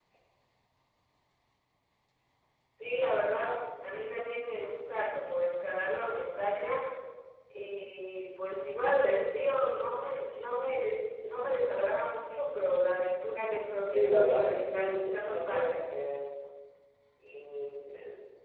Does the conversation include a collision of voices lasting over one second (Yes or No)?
Yes